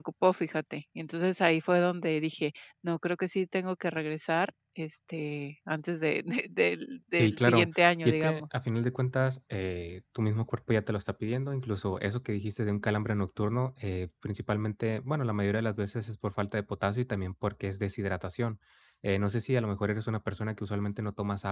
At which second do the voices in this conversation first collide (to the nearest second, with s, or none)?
7 s